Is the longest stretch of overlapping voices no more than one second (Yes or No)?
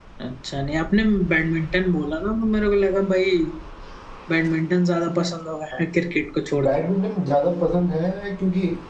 Yes